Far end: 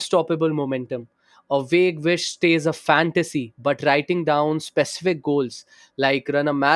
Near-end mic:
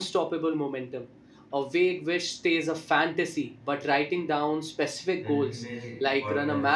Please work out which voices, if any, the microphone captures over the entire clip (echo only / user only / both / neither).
both